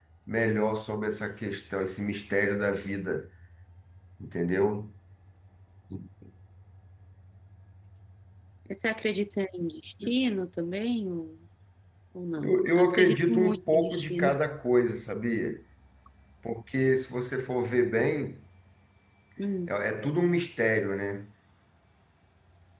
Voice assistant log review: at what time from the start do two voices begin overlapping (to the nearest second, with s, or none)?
12 s